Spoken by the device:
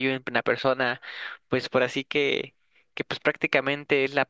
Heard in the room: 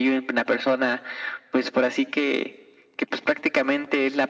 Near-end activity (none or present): none